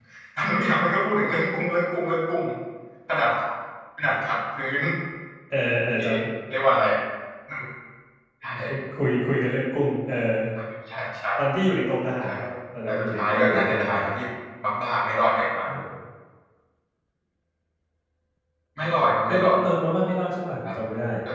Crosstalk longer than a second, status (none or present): present